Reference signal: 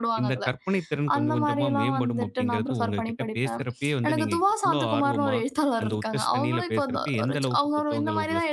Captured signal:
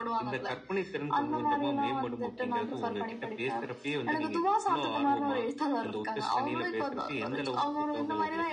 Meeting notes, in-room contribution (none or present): none